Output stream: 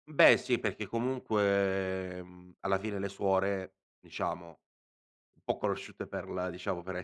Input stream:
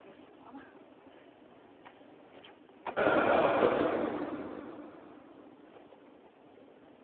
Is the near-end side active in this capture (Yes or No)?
Yes